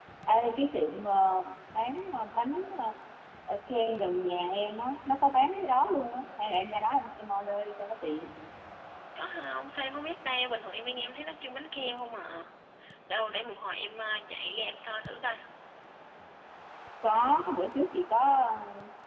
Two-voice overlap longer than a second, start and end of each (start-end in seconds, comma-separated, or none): none